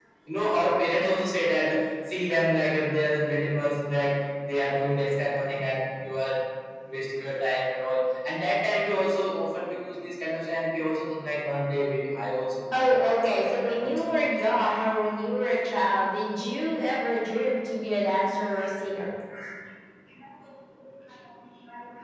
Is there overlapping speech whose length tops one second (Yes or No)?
Yes